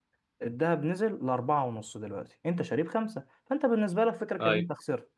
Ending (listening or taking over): listening